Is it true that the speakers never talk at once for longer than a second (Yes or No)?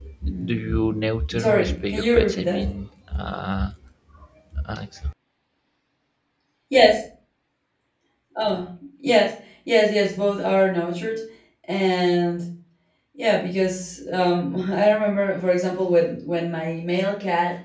No